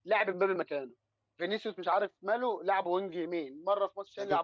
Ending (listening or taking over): taking over